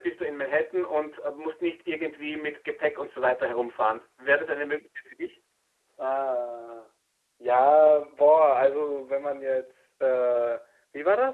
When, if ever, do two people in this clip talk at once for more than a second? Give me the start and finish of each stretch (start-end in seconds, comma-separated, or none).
none